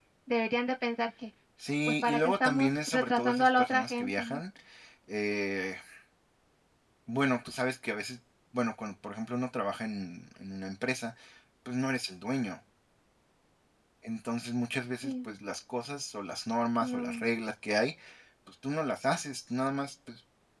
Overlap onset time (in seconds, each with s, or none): 1.9 s